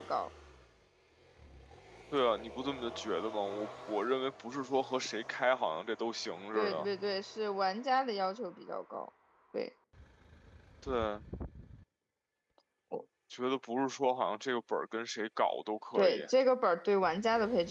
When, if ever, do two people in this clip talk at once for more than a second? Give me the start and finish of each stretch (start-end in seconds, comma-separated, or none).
none